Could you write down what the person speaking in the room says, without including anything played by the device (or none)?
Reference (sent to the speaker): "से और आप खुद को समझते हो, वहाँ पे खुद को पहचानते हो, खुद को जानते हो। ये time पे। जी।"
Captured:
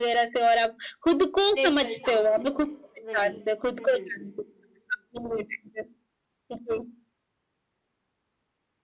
नेचुरल साउंड देता है वही हम्म हम्म